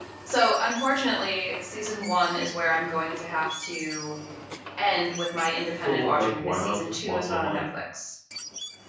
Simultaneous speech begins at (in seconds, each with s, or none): 5.8 s